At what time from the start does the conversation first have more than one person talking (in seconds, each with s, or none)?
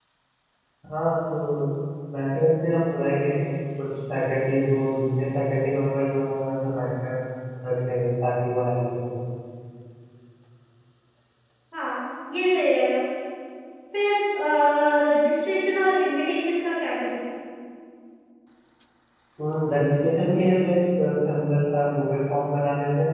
none